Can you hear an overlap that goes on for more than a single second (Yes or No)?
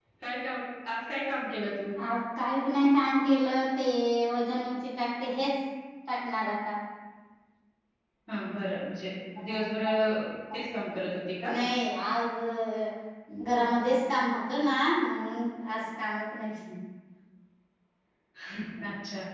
No